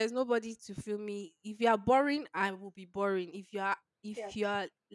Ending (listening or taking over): listening